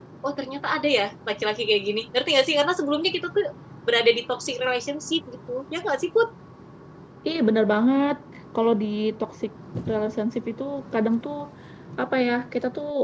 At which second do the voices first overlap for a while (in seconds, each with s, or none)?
none